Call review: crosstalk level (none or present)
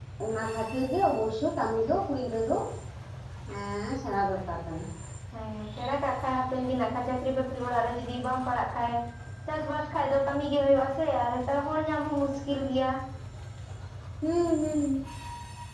none